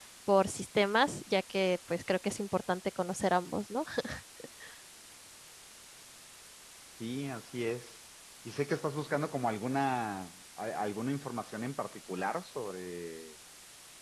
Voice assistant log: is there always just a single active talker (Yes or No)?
Yes